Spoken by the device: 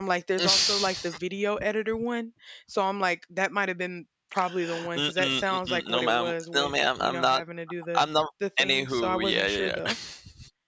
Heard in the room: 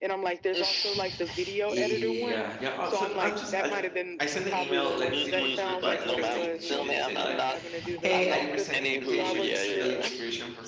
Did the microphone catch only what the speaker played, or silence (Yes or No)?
No